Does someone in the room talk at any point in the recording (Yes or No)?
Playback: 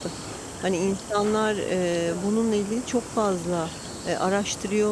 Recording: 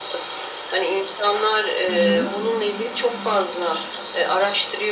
Yes